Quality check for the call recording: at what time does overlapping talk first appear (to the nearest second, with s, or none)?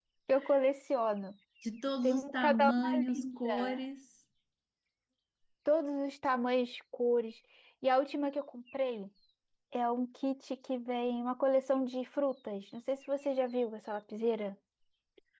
2 s